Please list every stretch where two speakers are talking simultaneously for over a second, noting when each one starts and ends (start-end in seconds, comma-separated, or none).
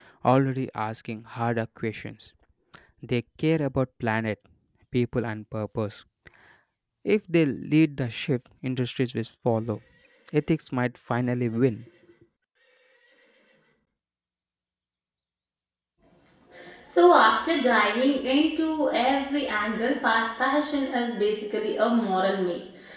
none